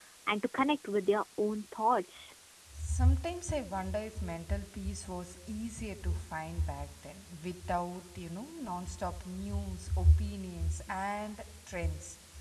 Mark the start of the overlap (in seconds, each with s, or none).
none